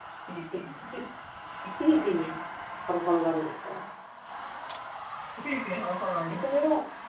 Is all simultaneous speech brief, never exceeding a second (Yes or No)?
Yes